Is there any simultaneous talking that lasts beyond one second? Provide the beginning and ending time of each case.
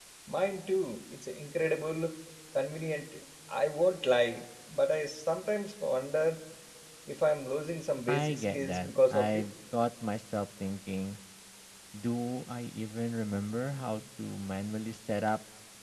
8.1-9.4

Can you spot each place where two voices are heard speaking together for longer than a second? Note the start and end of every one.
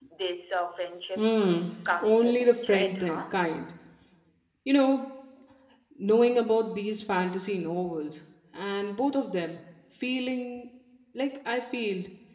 2.0-3.3

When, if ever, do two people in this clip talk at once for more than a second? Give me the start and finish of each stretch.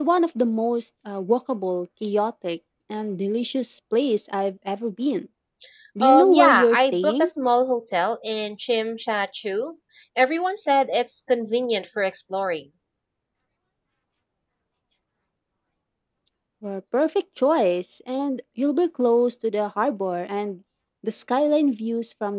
6.0-7.3

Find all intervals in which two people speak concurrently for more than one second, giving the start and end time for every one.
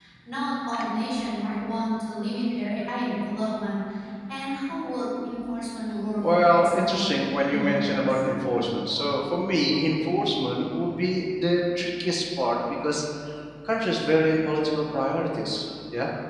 6.2-8.2

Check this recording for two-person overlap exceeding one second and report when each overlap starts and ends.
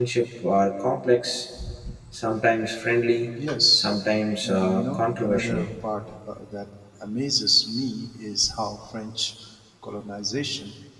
4.4-5.7

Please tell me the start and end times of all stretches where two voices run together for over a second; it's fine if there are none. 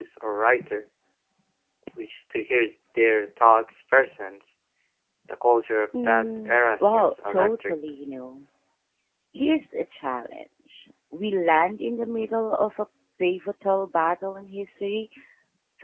6.0-7.7

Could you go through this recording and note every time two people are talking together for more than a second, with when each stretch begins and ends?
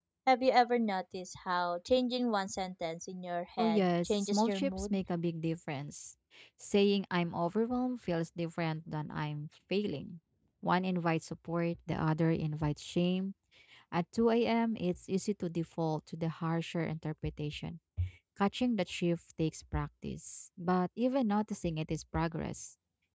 3.6-5.0

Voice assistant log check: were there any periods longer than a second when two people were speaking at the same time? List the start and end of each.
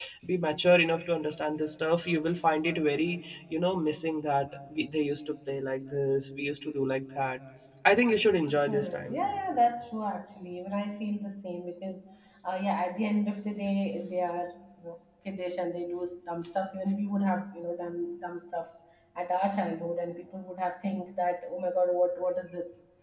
none

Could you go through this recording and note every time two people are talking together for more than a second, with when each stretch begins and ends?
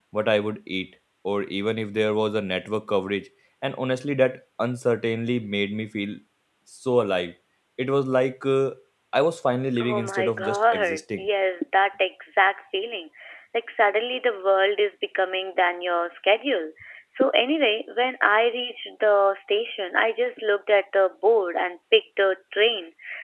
9.8-11.3

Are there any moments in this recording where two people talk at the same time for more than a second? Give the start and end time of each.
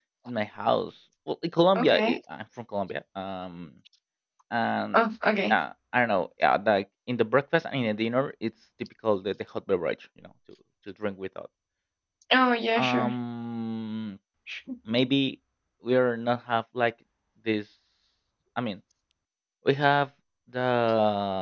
none

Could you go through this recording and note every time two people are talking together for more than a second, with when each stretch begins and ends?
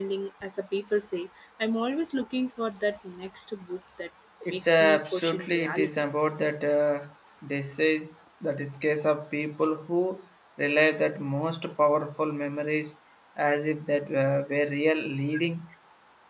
4.5-5.9

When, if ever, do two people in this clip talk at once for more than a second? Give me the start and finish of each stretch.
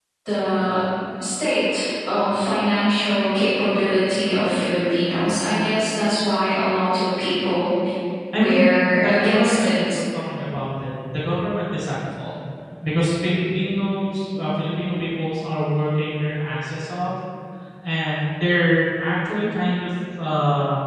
8.3-9.7

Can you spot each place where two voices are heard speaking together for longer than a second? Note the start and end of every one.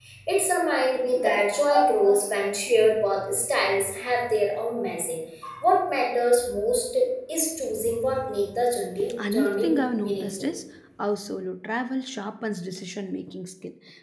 9.2-10.5

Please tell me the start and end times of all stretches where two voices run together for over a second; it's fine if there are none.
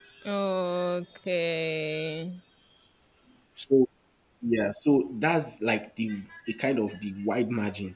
none

